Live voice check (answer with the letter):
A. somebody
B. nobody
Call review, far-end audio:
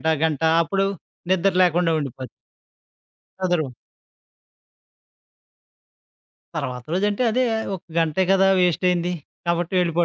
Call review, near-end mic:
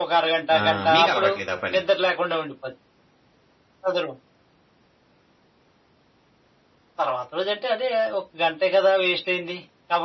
A